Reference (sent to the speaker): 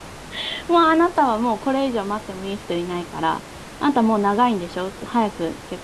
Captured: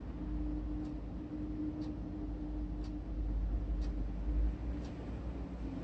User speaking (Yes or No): No